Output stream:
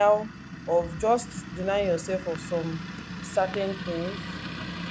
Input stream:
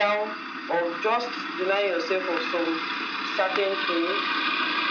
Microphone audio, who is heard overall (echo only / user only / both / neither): echo only